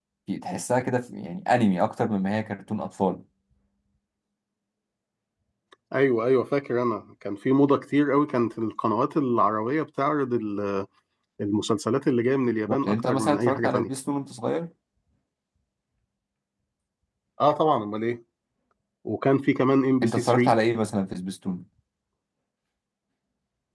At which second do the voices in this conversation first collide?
12.7 s

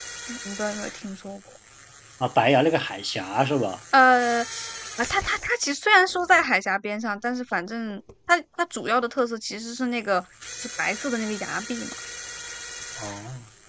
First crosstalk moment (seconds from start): none

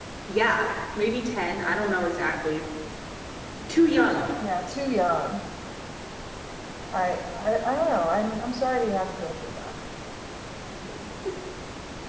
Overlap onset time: none

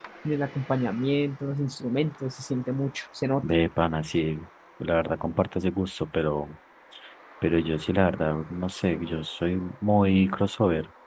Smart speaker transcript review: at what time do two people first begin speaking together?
none

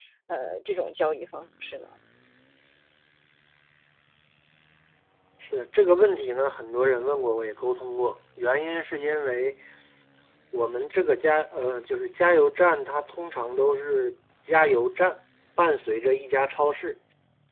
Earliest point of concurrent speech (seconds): none

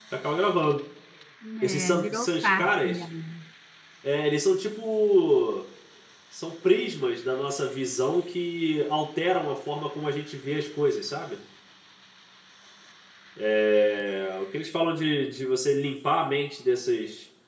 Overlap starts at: 1.6 s

